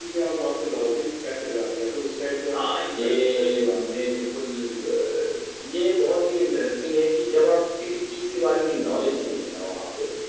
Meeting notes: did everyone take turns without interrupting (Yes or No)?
No